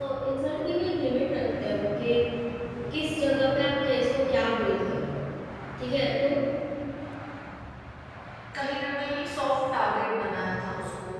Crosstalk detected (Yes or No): No